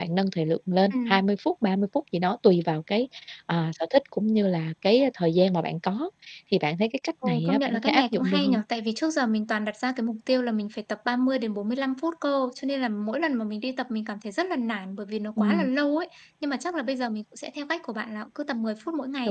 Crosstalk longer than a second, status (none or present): present